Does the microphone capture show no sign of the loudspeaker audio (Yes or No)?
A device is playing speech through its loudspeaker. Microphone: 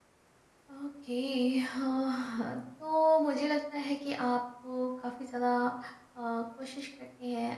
Yes